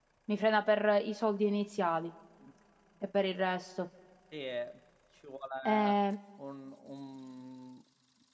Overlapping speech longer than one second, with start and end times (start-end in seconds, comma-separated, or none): none